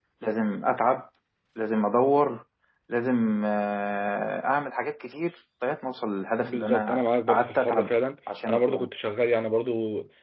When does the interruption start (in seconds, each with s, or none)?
6.4 s